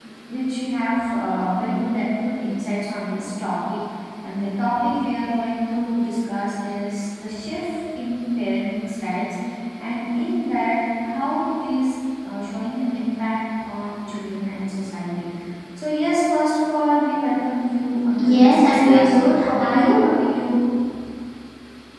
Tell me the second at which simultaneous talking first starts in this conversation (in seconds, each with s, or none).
18.1 s